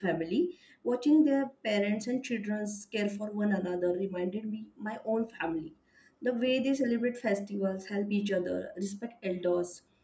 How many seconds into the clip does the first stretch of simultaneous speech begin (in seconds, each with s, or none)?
none